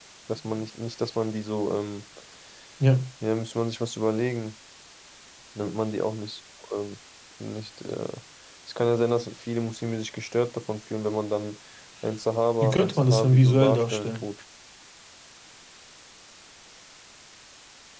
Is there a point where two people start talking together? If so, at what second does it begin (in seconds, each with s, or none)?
12.6 s